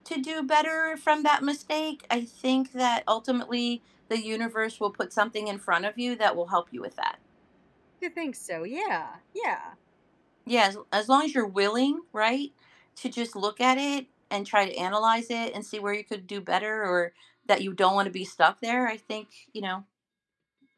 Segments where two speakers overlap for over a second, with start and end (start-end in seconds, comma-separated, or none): none